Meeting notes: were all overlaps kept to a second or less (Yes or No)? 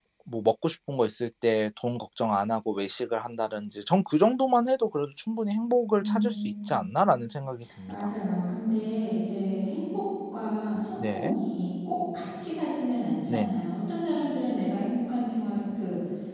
Yes